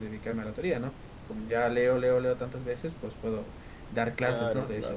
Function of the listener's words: listening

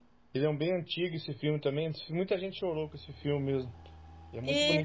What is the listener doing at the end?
taking over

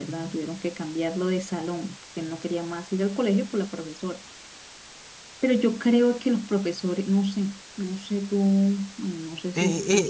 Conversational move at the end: taking over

